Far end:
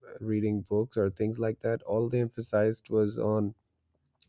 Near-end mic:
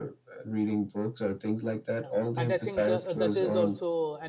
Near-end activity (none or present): present